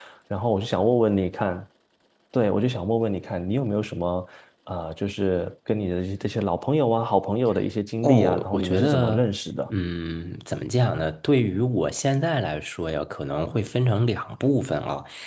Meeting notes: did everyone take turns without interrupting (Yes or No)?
No